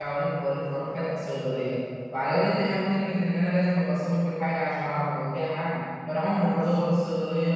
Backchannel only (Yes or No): Yes